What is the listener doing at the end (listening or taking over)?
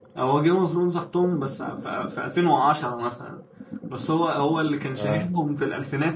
listening